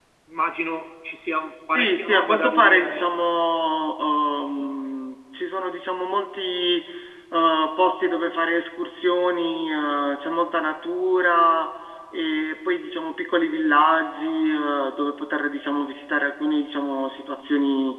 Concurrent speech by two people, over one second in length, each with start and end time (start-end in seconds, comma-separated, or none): 1.7-3.1